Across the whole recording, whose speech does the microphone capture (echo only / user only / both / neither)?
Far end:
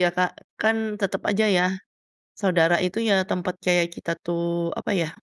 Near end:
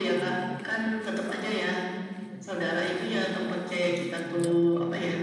both